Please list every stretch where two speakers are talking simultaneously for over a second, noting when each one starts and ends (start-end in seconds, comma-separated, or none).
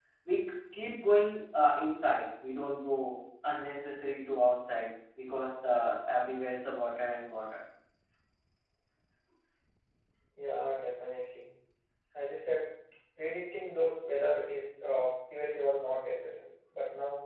none